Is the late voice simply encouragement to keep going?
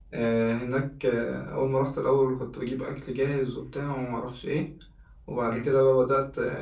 Yes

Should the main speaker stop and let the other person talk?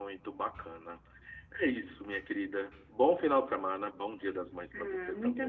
Yes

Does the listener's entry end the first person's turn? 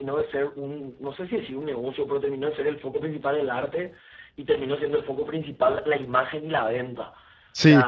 No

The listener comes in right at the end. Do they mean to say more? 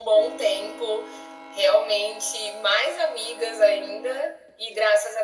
No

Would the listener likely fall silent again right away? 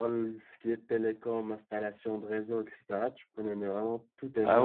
No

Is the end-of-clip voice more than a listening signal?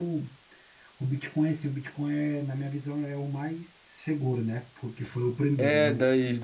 Yes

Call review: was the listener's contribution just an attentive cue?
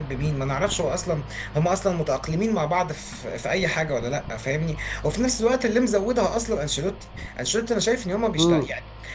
Yes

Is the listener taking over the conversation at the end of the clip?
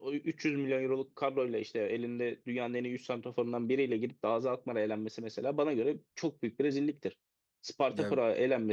No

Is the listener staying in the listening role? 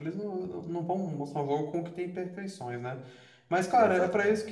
Yes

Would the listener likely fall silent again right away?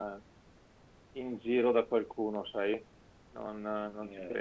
No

